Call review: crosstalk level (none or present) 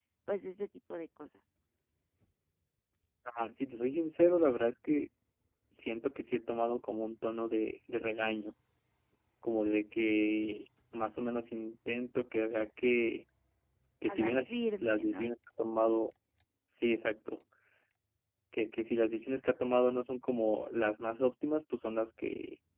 present